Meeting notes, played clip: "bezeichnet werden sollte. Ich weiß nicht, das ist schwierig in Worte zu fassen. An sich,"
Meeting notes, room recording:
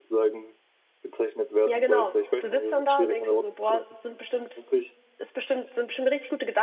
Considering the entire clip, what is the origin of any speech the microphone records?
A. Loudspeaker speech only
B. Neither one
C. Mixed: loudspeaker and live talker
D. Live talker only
C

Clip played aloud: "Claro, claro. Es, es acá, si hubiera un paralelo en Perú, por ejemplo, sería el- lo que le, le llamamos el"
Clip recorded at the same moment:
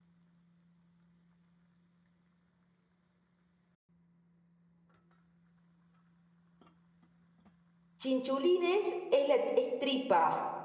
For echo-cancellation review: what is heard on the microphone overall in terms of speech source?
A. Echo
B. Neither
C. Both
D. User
D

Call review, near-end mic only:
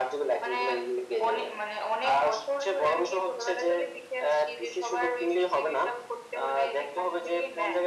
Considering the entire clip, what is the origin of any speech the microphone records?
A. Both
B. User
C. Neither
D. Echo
D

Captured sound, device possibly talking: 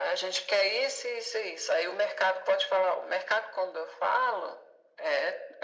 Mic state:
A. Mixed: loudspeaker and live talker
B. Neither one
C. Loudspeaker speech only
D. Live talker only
C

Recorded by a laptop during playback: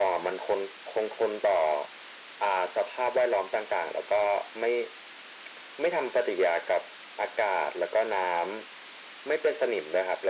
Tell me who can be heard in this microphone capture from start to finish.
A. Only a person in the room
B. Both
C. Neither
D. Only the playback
D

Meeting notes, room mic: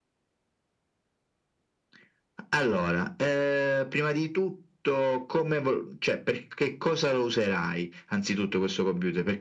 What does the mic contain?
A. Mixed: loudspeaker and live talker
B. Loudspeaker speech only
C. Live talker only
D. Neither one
B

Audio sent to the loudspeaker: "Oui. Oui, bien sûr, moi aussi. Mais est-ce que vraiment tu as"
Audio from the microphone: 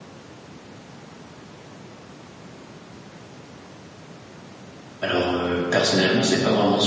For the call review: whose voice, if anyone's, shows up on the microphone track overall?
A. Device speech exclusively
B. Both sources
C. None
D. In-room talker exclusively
D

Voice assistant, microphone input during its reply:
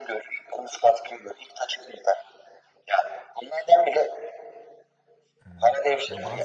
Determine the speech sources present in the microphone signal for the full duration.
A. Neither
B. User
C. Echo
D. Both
D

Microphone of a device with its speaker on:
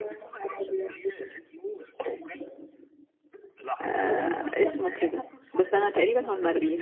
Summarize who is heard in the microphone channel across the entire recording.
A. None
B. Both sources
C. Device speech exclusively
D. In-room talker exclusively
B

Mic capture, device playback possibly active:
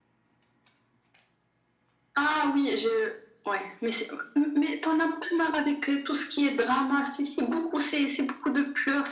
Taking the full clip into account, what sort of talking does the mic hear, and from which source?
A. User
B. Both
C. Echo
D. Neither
C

